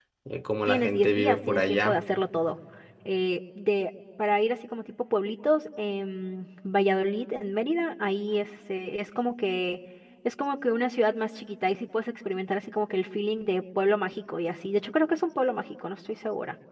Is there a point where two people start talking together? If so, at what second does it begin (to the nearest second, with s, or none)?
1 s